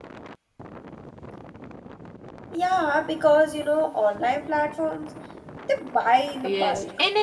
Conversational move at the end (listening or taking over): taking over